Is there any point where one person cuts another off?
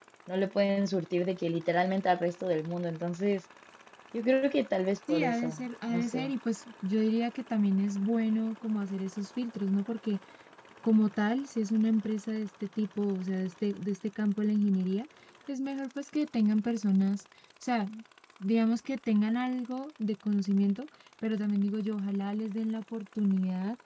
Yes, from 5.1 s

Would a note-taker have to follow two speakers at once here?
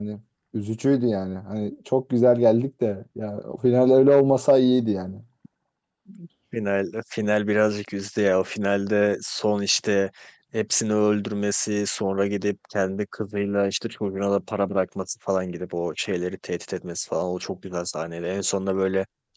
No

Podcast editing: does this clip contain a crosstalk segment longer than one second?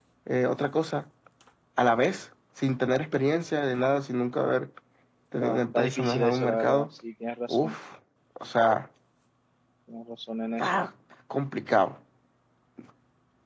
Yes, from 5.4 s

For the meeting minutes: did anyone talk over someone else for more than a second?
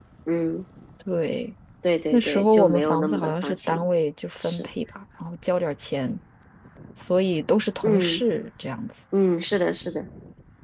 Yes, from 2.1 s

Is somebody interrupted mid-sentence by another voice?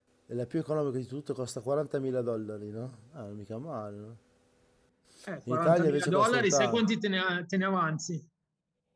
Yes, from 5.5 s

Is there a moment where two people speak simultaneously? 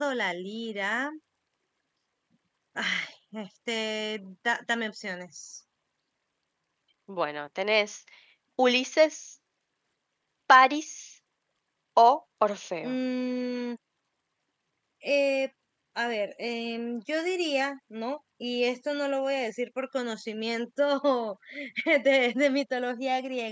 No

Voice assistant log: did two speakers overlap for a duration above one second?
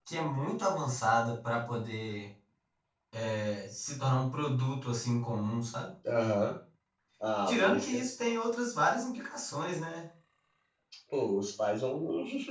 No

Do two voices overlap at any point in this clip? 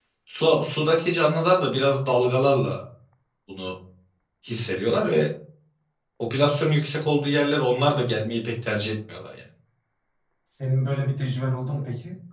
No

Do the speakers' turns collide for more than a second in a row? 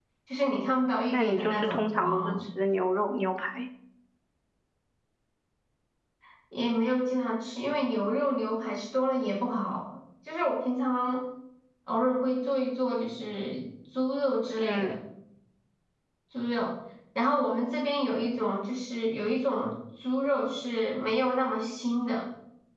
Yes, from 1.1 s

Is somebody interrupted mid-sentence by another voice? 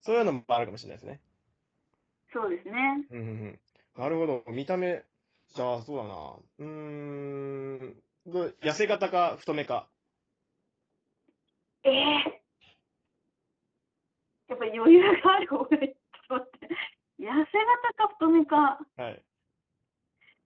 No

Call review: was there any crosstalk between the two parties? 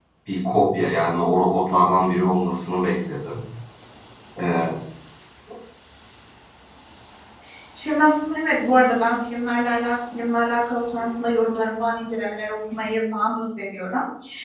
No

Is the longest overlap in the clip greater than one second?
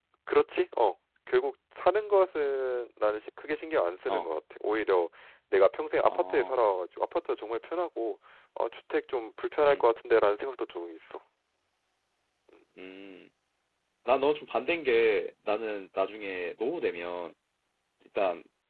No

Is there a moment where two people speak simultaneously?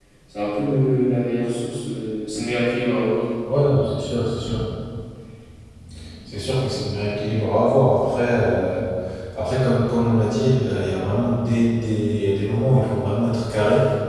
No

